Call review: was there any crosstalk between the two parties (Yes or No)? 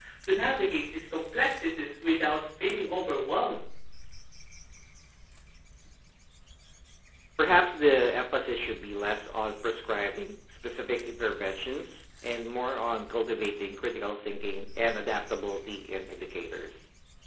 No